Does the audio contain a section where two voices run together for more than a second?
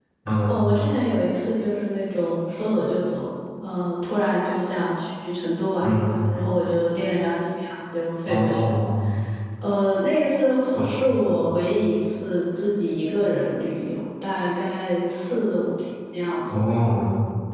No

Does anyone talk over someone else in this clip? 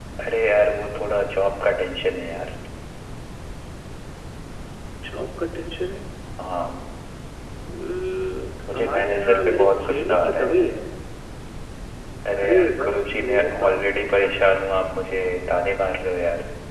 Yes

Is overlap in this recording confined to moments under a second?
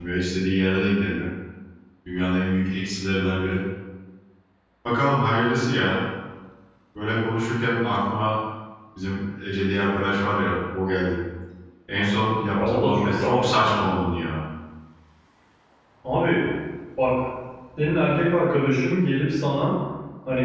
No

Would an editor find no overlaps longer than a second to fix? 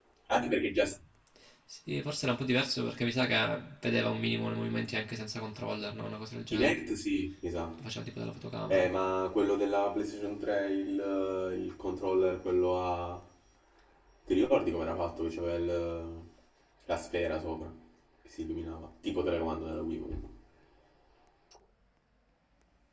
Yes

